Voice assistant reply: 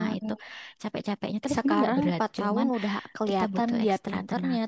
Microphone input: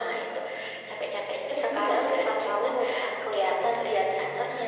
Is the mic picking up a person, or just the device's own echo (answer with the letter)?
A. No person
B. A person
A